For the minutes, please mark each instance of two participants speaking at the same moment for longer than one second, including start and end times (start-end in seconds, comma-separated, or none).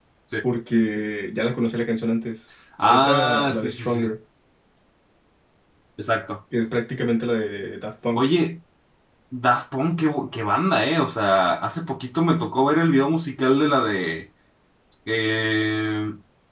2.8-4.1